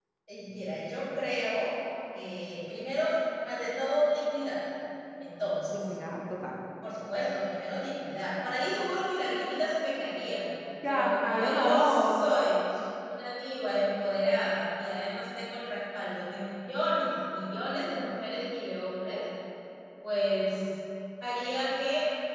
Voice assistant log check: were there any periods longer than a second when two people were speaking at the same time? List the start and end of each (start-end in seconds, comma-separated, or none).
10.9-12.2